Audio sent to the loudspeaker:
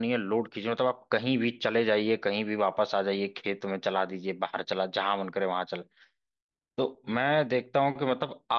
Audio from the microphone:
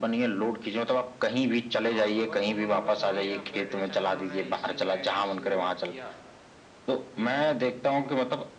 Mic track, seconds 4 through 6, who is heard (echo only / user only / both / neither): both